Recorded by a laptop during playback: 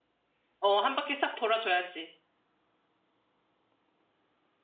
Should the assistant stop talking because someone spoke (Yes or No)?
Yes